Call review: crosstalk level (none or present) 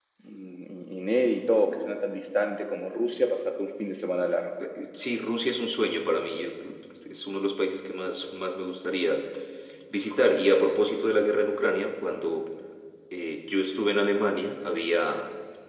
none